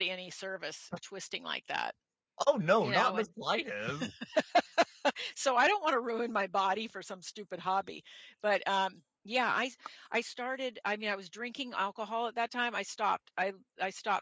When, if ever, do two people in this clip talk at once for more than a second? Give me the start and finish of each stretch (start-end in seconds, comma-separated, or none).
none